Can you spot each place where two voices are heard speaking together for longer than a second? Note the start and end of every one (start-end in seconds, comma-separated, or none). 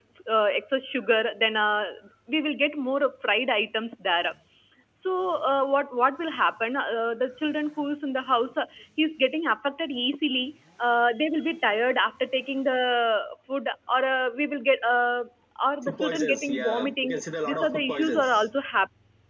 15.8-18.3